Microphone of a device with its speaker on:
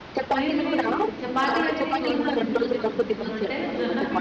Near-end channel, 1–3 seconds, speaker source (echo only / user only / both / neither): both